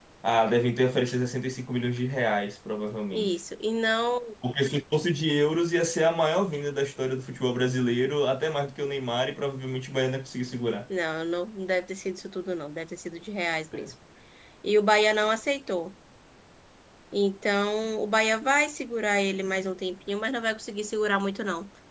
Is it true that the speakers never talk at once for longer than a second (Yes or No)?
Yes